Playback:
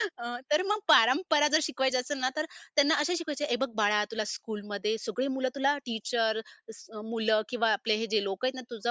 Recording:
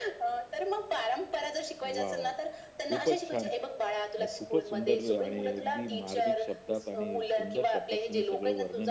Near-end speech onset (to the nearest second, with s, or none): 2 s